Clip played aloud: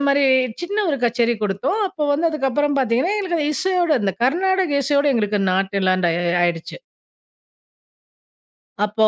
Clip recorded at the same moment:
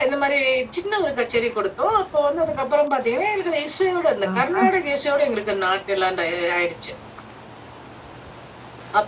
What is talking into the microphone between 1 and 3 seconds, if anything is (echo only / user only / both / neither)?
echo only